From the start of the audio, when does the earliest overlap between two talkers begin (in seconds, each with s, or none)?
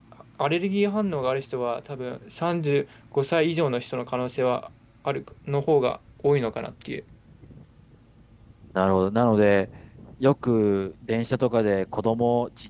none